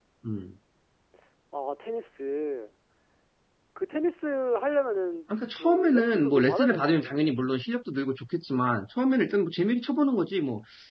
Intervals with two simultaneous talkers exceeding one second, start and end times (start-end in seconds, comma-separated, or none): 5.5-7.4